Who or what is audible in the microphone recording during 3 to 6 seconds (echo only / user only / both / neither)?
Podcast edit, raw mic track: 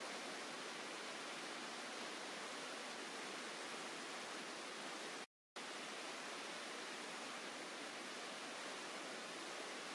neither